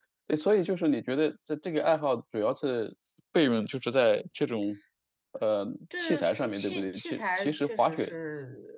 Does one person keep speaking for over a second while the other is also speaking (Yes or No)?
Yes